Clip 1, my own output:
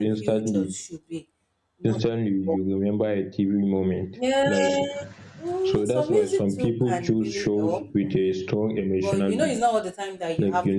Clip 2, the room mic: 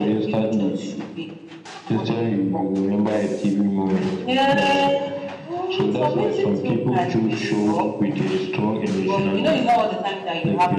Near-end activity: none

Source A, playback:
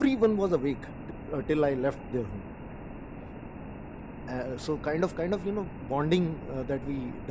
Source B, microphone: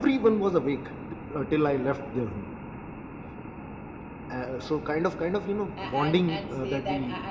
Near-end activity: present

